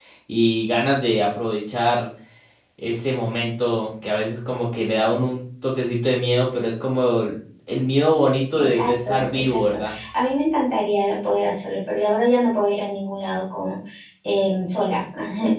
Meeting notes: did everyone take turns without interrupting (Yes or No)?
No